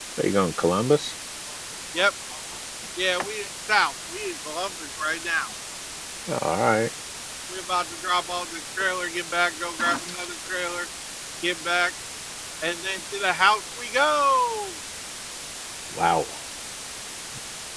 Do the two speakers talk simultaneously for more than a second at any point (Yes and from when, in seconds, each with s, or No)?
No